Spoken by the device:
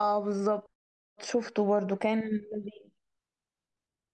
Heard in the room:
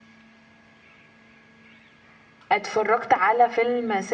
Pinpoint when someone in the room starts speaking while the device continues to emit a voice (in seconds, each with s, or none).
2.5 s